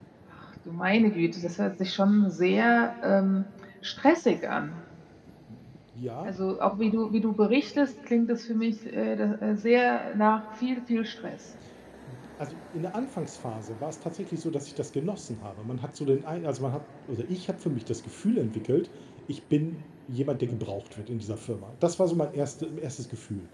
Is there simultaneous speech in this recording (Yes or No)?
No